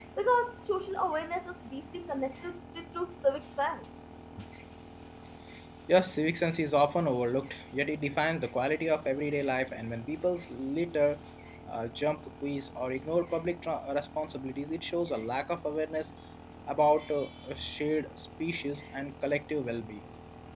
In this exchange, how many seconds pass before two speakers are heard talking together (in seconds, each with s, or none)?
none